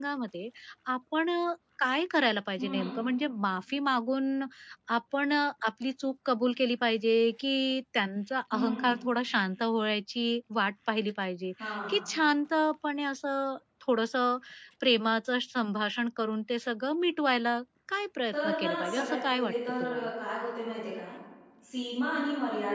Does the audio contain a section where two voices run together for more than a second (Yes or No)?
Yes